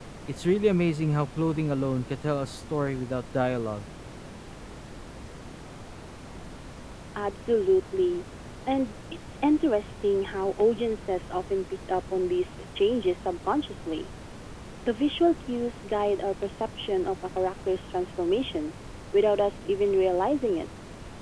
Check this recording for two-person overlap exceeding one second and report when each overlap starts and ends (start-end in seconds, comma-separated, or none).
none